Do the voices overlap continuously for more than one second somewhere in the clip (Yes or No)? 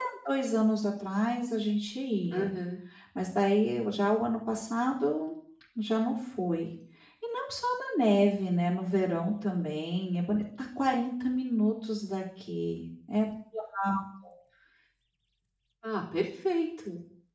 No